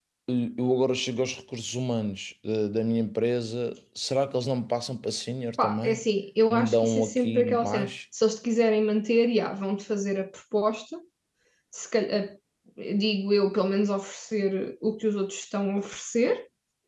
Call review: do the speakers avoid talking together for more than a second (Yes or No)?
No